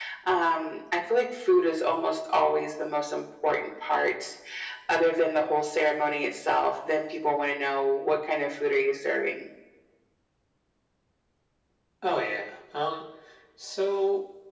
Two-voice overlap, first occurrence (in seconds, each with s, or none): none